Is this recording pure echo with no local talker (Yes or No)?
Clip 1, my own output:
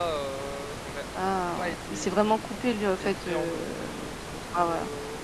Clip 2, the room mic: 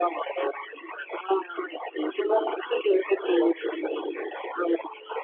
Yes